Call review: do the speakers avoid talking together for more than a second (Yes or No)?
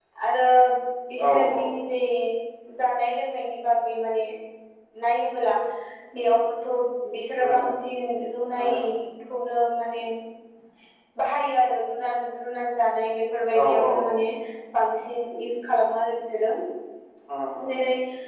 Yes